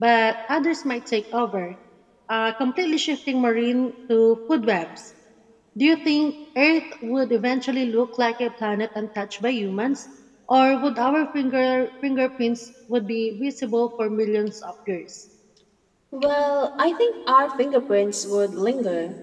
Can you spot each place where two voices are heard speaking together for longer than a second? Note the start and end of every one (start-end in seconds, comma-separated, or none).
none